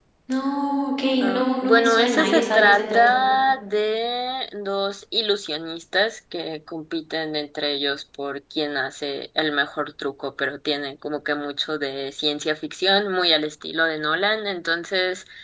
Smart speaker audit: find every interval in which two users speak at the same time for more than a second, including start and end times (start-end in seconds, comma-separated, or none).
1.2-3.0